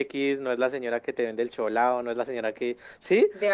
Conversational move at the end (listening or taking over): listening